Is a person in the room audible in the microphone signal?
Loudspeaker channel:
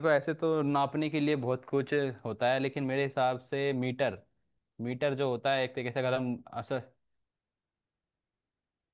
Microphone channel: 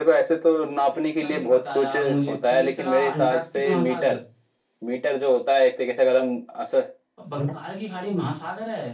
Yes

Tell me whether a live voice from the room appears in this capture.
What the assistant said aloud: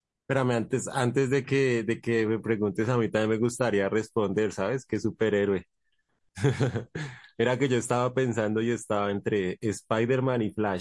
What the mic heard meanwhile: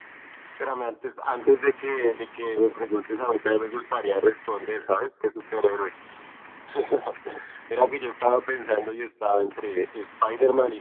No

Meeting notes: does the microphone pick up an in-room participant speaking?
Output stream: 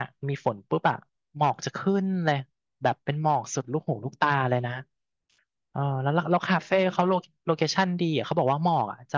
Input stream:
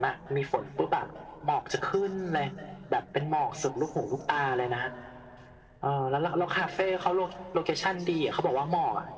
No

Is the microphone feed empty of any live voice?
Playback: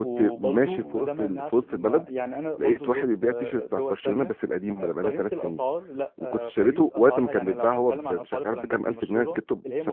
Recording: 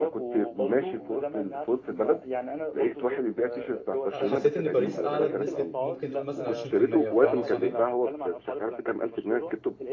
No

